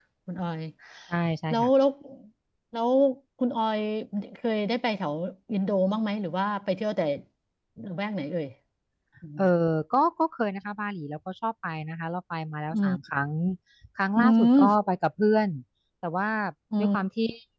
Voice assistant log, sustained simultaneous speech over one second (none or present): none